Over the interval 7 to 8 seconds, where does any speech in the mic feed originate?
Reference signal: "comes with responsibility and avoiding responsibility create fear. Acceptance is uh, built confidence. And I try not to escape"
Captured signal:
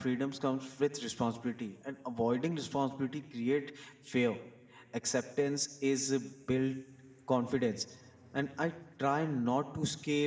echo only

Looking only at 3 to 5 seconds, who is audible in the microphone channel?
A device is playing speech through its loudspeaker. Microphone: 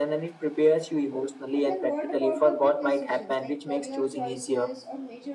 both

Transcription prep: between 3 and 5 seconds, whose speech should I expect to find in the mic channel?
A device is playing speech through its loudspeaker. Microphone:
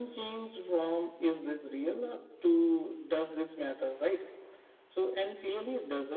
echo only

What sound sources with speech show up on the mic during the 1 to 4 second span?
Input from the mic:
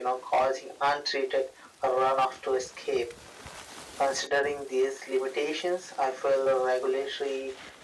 echo only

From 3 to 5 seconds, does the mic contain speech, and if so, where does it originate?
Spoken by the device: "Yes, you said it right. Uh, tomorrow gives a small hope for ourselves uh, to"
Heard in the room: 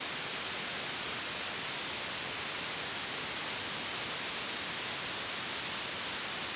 neither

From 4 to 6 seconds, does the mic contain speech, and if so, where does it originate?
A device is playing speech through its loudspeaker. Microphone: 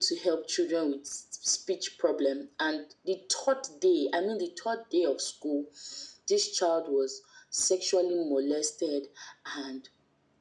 echo only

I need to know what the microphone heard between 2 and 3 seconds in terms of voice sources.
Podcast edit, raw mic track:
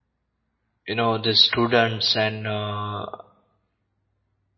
user only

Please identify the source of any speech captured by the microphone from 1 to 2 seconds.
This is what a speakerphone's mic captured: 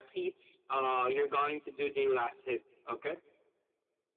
echo only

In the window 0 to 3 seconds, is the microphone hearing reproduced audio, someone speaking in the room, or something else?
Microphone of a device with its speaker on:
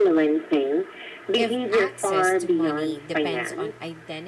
both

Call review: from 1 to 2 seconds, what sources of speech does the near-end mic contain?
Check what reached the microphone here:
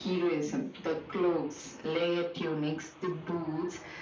echo only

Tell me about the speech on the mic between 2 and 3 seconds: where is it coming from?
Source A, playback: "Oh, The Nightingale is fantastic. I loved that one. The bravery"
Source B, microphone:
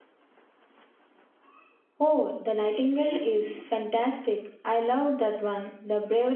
both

